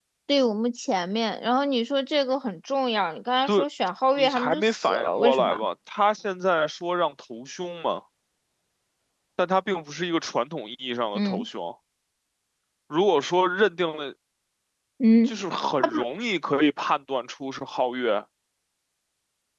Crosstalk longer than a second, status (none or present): present